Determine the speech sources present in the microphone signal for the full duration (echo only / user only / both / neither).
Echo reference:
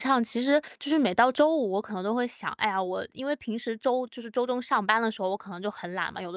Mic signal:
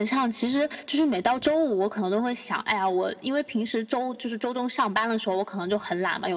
echo only